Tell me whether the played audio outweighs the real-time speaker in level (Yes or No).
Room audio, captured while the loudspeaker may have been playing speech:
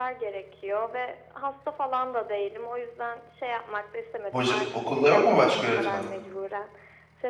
No